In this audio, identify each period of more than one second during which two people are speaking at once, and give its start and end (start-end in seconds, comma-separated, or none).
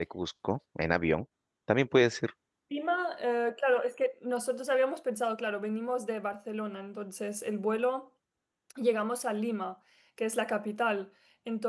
none